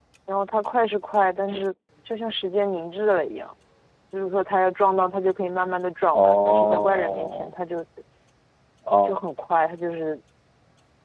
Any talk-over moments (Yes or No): Yes